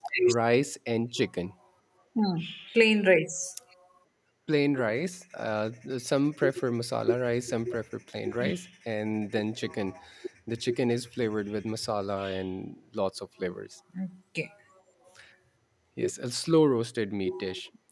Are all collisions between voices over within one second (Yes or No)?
Yes